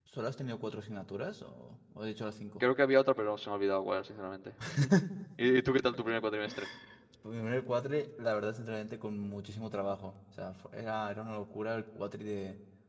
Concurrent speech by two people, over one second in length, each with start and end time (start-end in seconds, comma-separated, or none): none